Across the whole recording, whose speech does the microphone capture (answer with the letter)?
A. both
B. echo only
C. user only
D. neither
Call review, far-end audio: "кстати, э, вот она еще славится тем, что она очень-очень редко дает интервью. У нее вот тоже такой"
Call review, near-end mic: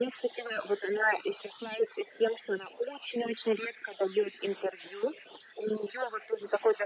B